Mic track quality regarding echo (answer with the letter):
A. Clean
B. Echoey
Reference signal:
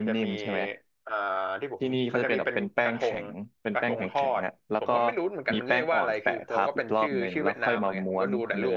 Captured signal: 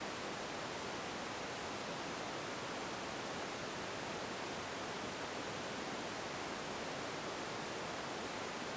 A